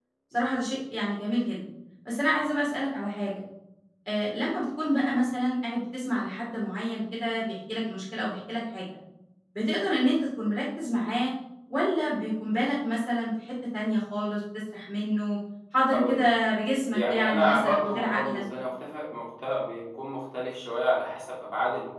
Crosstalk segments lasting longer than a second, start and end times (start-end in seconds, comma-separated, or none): 16.9-18.4